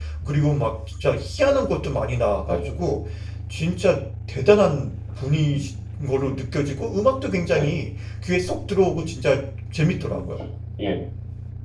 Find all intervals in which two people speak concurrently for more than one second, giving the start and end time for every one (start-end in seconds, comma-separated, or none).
none